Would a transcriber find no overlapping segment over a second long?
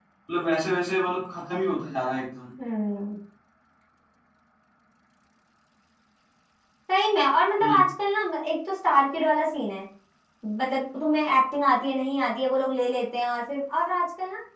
Yes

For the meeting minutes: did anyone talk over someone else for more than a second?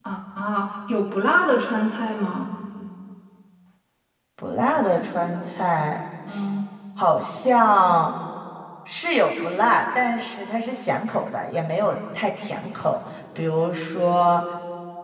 No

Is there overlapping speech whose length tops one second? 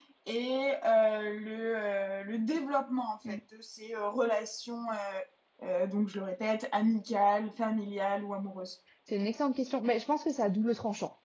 No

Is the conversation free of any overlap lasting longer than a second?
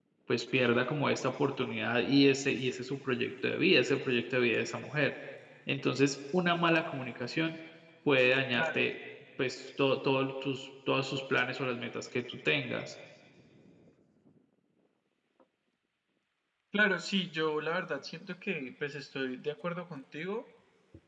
Yes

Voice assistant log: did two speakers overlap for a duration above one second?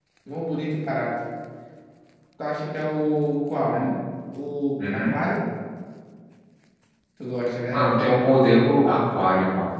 No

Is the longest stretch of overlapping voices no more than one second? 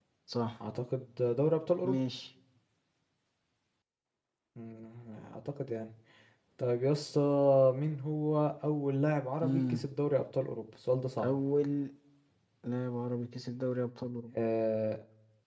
Yes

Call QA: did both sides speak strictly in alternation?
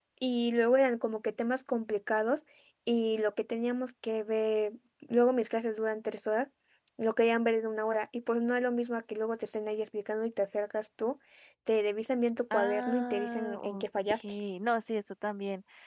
No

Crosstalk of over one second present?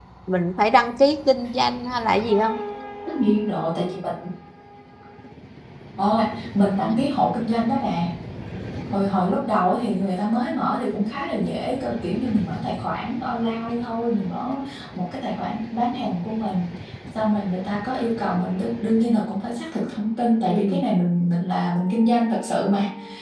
No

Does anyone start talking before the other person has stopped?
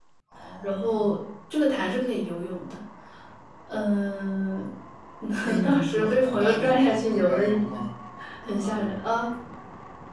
Yes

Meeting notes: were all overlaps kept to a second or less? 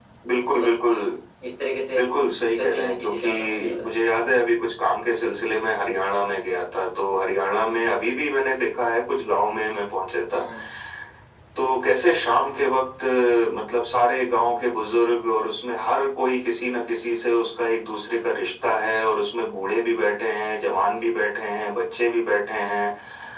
No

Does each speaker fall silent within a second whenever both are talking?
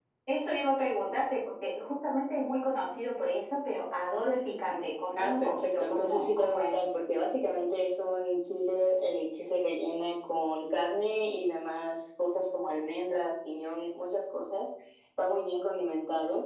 No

